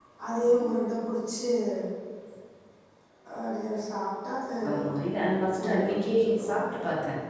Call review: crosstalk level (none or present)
present